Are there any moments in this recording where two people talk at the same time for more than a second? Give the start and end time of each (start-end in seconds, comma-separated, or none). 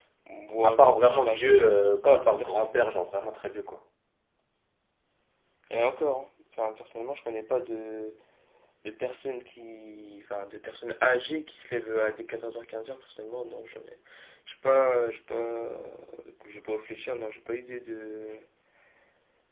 0.6-2.8